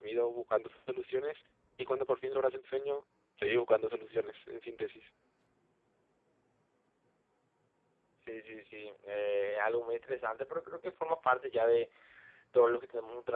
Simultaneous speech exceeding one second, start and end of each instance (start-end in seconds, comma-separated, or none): none